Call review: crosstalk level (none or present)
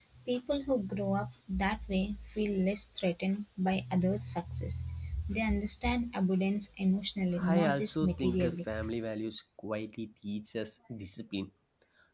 present